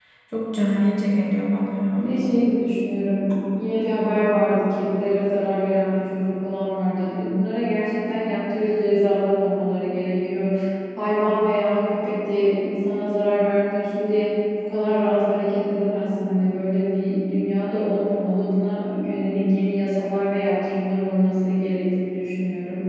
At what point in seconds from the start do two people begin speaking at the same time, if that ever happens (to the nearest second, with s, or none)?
none